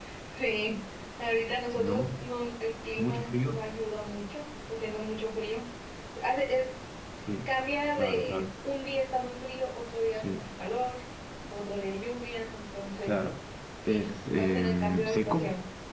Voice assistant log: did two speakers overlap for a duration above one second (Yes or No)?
Yes